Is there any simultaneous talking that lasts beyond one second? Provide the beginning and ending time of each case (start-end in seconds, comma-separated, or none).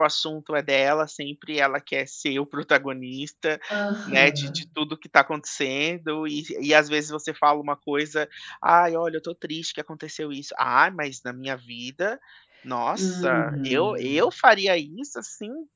12.9-14.2